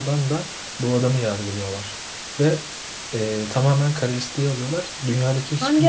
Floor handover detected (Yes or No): No